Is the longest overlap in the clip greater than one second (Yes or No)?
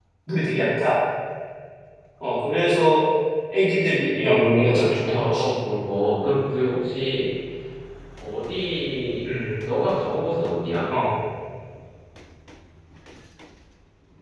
Yes